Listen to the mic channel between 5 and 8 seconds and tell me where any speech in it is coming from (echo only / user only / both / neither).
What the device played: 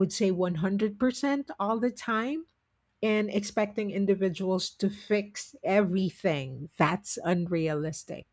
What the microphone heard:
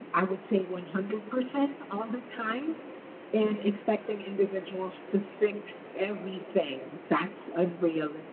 echo only